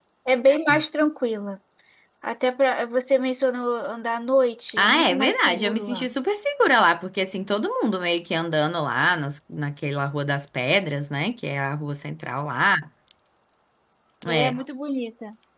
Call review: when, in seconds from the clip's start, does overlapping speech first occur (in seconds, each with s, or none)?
4.8 s